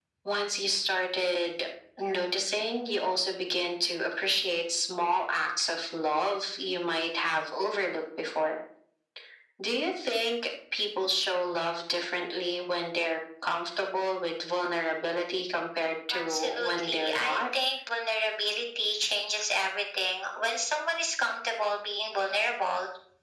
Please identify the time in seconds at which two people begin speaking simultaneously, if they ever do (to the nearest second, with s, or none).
16 s